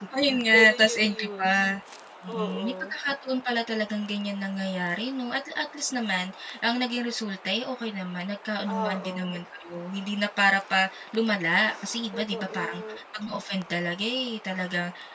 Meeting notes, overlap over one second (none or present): present